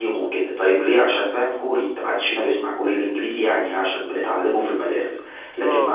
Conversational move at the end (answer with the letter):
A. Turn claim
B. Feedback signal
B